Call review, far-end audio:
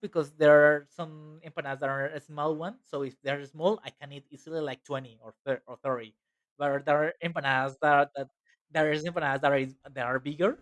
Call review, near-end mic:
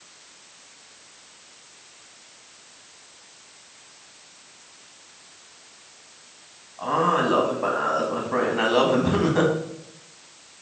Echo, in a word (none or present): none